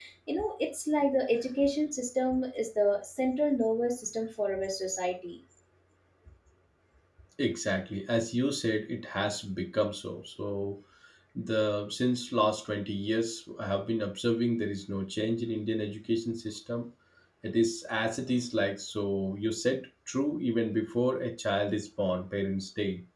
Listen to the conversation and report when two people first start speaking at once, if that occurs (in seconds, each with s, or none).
none